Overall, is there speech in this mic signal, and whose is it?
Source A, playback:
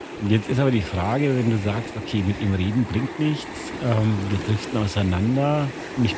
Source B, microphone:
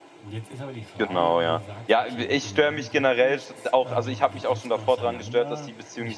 both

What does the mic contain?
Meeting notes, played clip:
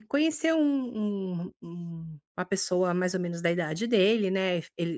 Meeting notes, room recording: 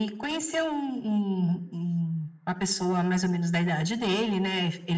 echo only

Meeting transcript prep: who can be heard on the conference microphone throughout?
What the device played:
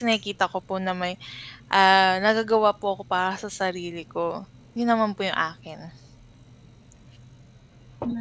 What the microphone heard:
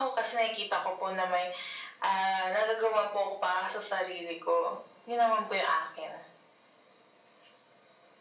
echo only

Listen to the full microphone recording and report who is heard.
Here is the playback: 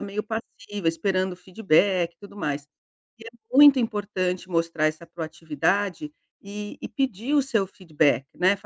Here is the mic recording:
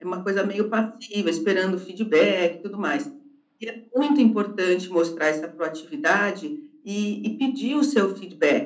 echo only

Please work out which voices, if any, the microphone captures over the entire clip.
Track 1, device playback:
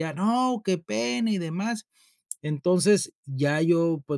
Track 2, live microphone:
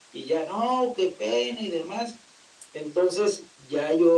echo only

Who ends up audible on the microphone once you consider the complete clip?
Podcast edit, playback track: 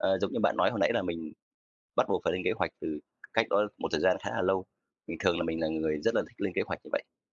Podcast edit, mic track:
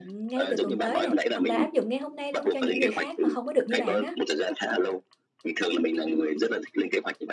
both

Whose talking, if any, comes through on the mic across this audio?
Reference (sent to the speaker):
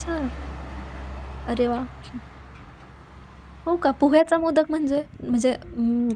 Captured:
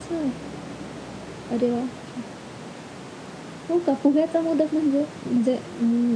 echo only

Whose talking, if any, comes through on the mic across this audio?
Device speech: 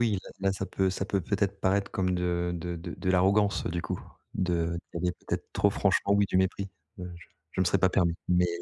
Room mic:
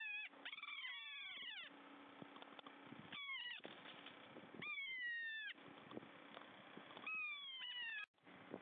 neither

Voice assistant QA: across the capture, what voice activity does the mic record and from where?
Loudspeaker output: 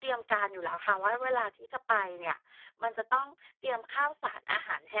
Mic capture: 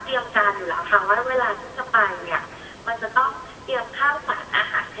echo only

